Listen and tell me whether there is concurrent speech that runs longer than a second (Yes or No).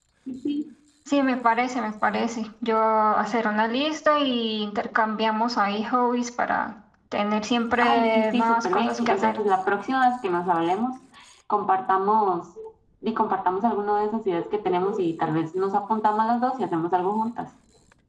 Yes